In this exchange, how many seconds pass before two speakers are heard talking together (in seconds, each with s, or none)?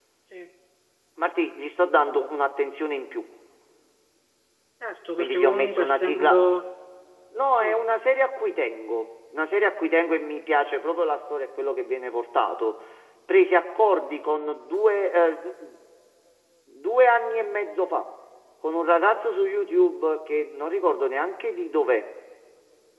5.2 s